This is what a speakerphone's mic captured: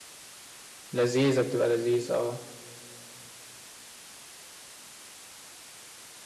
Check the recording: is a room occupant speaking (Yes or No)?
Yes